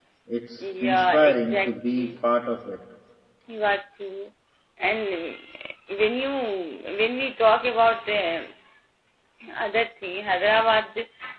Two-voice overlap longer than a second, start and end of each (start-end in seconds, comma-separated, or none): 0.6-2.1